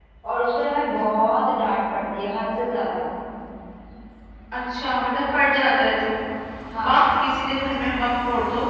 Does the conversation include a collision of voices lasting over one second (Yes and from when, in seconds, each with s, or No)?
No